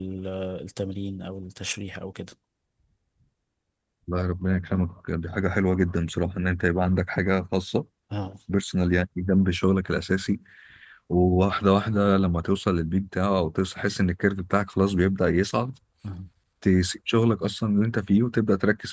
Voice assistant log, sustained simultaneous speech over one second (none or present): none